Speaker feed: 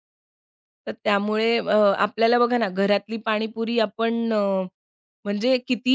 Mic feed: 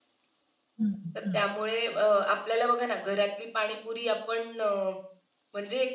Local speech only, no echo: हं, हं.

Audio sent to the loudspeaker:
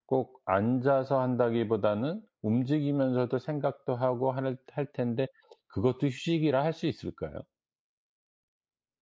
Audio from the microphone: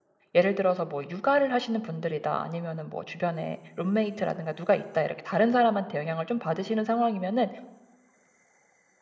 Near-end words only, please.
예를 들어서 뭐 육아를 하시는 분들이다 아니면은 뭐 주변에 룸메이트라든가 누가 있다 이렇게 다른 사람한테 영향을 좀 받으시는 상황이면은

